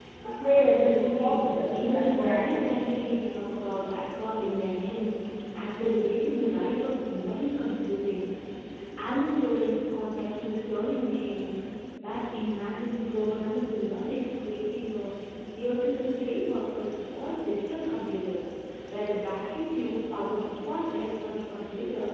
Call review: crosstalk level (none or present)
present